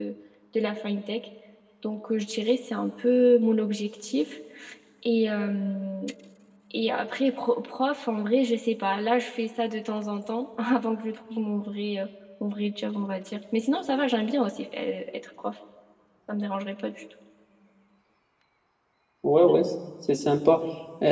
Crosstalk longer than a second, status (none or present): none